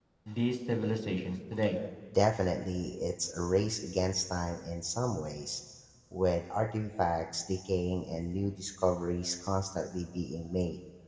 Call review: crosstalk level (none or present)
none